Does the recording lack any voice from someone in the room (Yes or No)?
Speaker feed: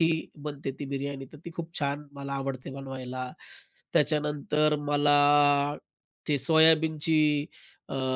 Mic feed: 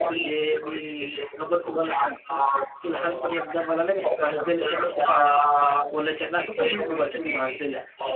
No